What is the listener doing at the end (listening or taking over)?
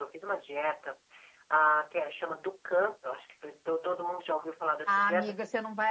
taking over